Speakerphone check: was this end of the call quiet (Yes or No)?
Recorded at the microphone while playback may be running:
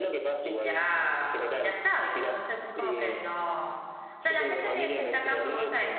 No